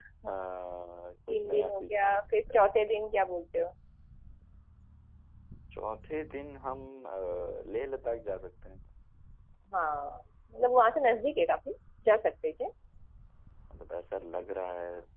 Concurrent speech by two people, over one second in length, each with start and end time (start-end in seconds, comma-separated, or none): 1.3-2.6